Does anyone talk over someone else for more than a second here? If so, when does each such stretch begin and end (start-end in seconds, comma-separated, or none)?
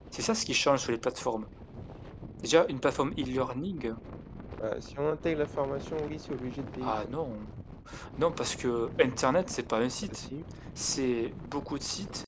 none